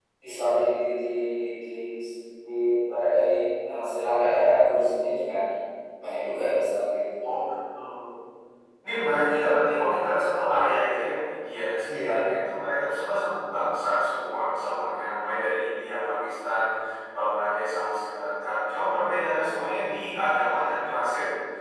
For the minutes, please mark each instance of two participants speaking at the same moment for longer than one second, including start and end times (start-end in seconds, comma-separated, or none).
none